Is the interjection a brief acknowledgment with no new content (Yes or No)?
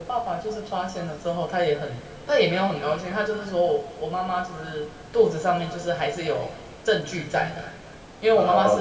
No